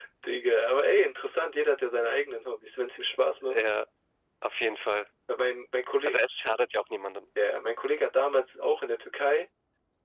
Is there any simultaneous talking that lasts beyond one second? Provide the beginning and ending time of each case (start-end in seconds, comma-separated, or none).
none